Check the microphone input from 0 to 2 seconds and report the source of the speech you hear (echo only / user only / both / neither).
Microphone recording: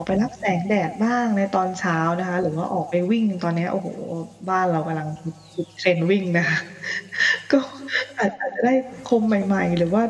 user only